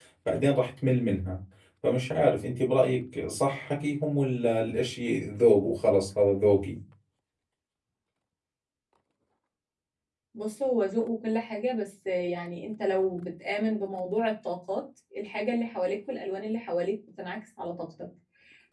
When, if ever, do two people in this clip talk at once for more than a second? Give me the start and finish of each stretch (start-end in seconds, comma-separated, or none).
none